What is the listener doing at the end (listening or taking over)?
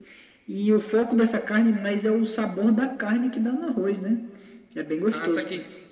taking over